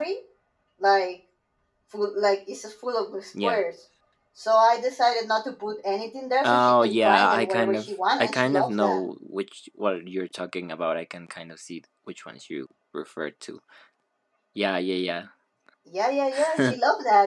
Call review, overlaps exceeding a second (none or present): present